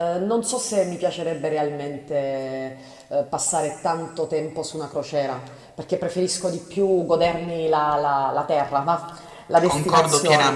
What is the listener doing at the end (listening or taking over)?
taking over